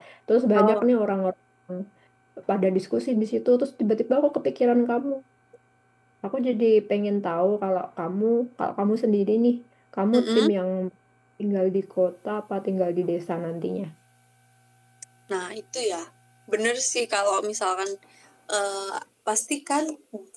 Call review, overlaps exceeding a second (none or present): none